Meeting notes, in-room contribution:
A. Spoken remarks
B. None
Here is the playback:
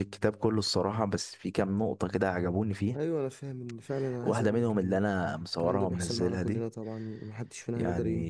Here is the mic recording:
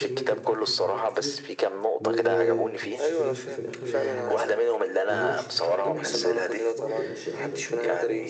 A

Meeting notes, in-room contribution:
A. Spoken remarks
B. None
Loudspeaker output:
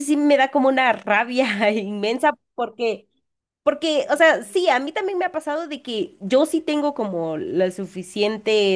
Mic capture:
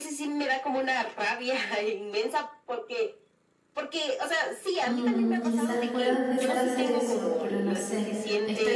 A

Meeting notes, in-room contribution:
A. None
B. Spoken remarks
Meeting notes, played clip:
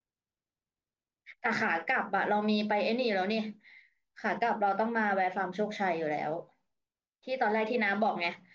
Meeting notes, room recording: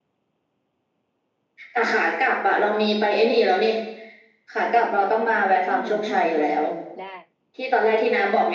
B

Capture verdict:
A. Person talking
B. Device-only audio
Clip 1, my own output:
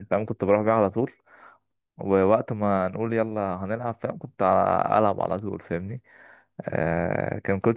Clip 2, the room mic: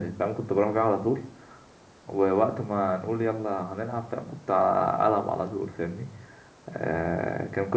B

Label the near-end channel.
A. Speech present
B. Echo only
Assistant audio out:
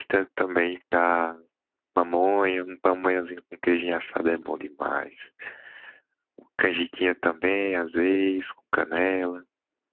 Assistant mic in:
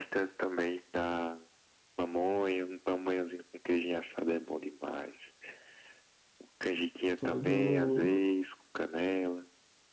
A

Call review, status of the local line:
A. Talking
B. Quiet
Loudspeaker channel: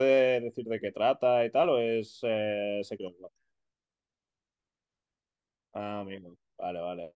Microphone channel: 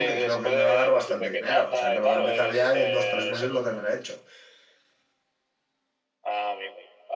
A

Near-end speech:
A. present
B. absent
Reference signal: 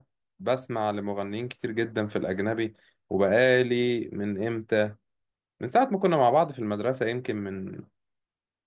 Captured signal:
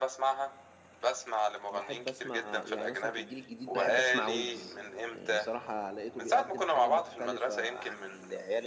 A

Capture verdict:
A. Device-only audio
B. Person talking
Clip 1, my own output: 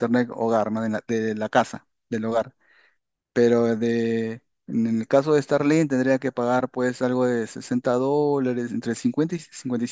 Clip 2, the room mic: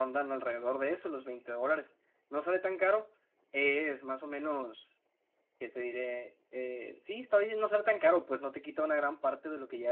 B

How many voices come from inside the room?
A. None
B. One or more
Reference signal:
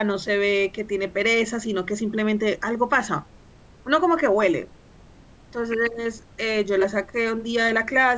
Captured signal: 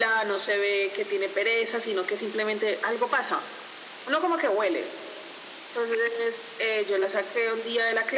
A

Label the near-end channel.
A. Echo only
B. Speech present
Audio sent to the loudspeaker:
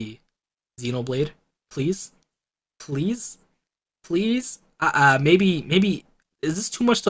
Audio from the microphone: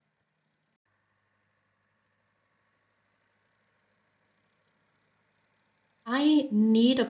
B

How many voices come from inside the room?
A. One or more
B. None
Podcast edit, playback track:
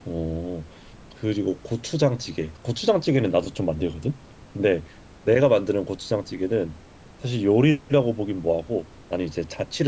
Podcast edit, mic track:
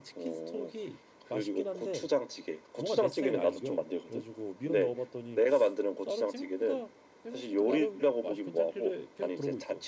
A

